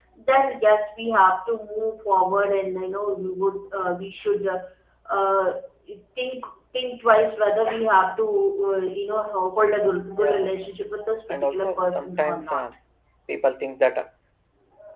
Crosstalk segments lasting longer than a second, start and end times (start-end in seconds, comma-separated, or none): 11.3-12.7